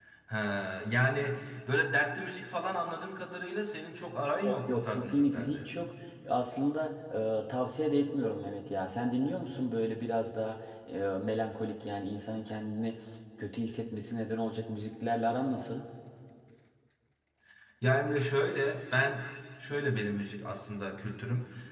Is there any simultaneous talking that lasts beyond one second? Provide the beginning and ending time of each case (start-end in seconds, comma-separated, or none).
4.5-5.7